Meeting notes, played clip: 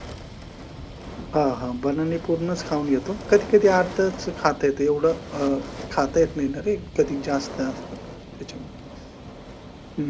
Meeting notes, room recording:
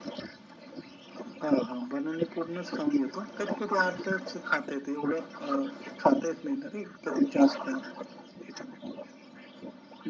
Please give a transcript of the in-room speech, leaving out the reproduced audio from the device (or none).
none